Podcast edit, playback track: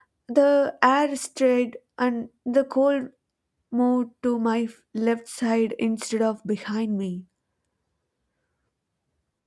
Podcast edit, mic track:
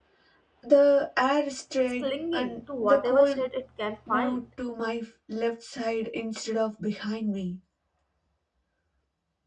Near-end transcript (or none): it's clinging to whatever shade it can find.